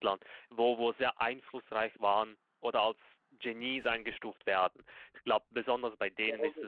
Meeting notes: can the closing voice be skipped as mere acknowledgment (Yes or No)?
No